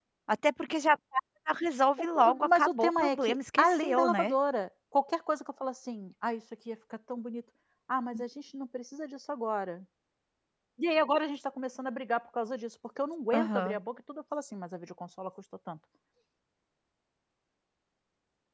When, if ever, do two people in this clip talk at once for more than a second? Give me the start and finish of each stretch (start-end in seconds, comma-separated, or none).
2.0-4.3